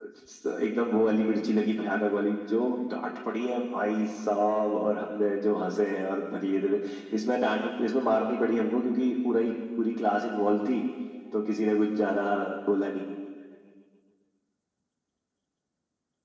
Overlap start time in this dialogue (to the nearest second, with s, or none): none